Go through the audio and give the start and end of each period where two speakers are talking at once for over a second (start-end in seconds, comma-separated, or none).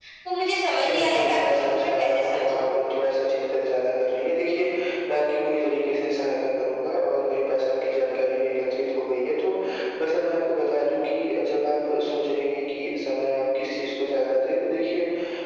0.8-2.9